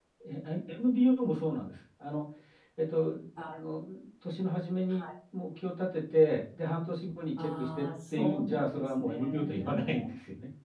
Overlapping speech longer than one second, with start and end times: 7.4-10.0

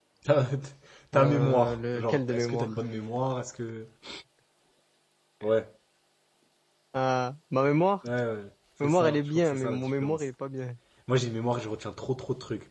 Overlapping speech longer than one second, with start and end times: 1.1-2.8, 8.8-10.2

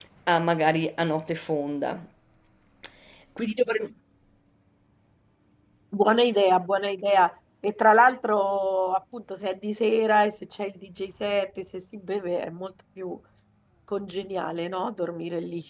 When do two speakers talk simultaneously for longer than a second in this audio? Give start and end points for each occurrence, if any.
none

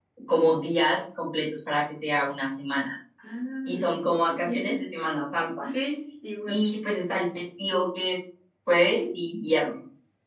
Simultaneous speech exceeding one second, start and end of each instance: none

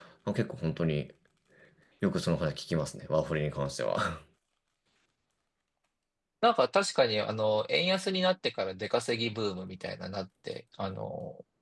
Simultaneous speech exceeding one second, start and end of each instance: none

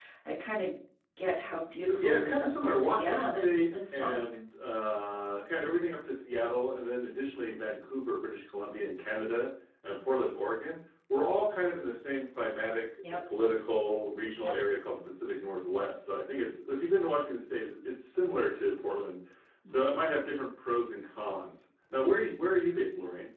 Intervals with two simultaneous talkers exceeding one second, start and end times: 2.0-4.2

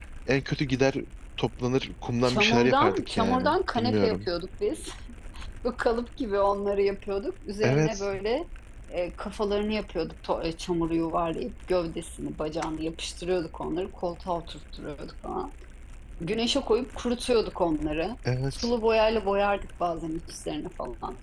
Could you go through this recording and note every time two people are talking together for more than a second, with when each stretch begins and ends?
2.2-4.3

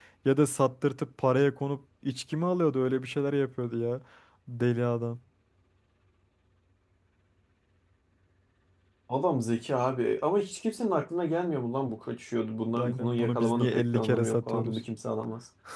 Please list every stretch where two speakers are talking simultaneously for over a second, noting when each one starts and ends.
12.8-14.8

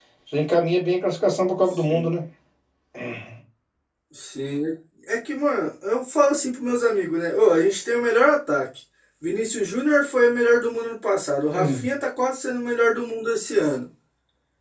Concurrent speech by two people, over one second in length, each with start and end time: none

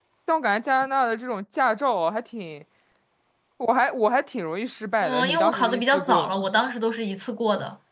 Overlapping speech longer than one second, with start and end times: 5.0-6.5

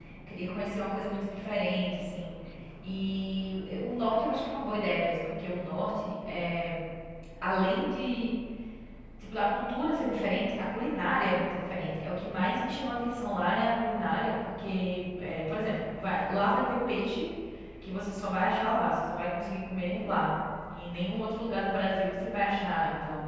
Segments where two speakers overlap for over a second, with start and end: none

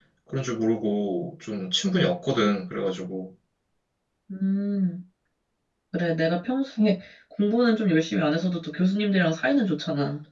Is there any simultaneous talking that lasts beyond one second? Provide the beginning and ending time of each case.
none

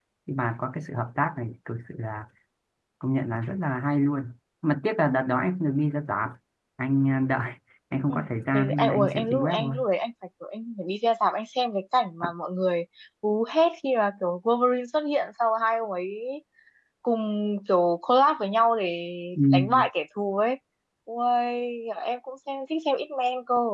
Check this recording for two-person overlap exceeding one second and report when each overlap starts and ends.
8.5-9.7

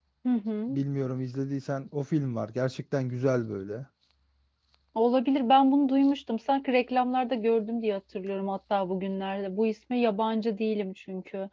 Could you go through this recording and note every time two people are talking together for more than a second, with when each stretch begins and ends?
none

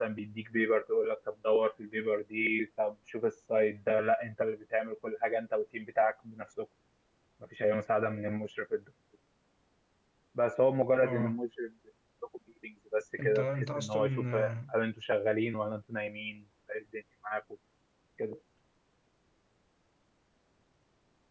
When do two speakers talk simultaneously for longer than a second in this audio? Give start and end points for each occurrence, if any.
13.2-14.7

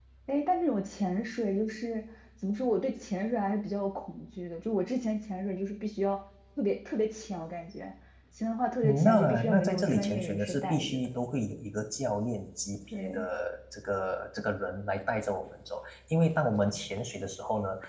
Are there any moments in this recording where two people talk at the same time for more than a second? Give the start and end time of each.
8.8-11.1

